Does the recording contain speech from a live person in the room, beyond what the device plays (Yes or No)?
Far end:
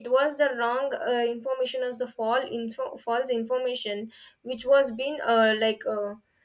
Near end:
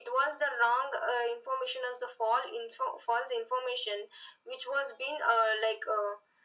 No